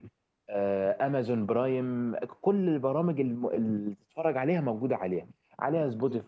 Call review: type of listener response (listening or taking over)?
listening